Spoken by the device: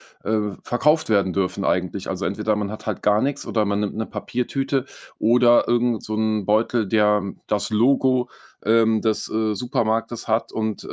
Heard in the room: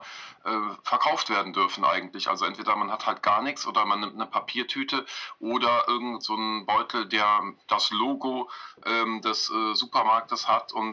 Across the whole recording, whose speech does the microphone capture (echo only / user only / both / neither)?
echo only